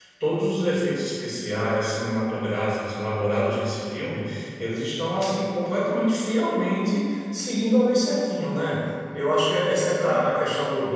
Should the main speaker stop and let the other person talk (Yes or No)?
No